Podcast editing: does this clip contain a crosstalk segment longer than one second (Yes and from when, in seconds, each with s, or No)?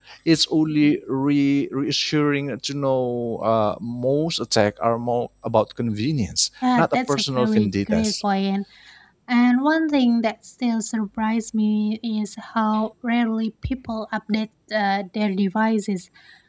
Yes, from 6.6 s